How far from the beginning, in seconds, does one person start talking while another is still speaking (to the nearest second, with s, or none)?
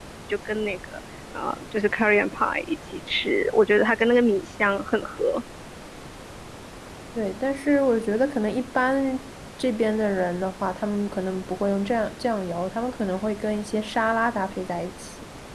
none